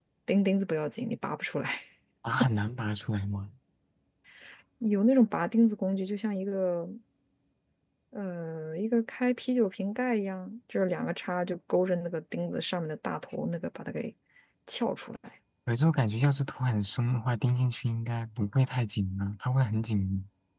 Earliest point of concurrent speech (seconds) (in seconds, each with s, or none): none